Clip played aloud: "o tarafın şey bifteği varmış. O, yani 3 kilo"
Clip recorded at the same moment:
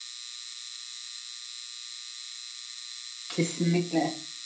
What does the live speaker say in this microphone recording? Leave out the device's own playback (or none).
kesinlikle.